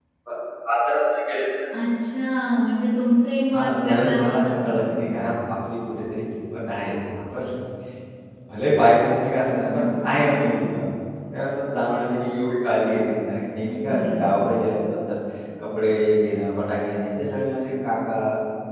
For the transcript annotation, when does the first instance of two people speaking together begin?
3.5 s

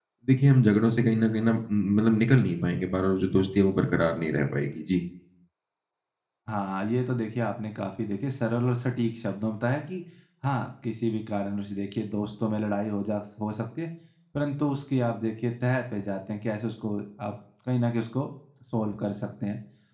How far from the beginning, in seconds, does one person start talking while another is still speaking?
none

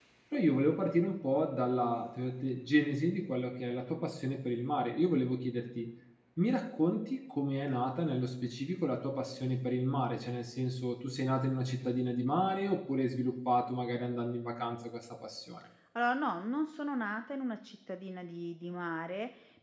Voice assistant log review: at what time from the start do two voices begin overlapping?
none

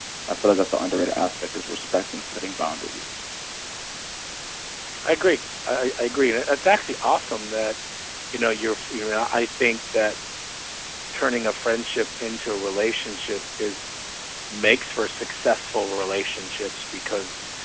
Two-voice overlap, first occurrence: none

